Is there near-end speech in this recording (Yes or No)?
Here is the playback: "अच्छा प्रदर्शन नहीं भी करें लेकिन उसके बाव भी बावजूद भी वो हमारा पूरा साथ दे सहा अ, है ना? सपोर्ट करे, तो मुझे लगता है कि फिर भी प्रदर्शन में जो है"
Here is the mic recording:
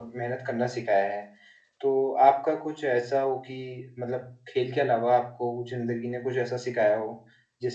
Yes